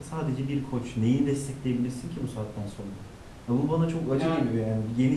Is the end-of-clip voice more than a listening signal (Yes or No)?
No